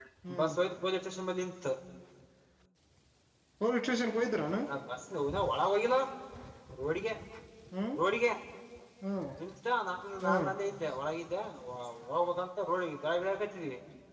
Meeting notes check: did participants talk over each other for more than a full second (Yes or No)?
No